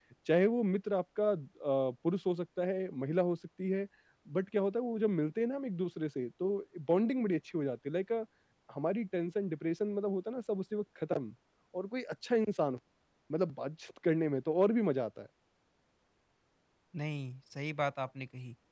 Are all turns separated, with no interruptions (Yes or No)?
Yes